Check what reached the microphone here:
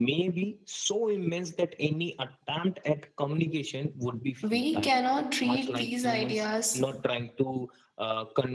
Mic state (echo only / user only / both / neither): both